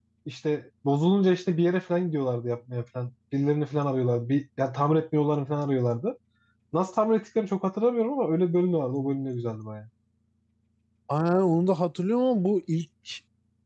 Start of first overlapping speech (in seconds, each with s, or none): none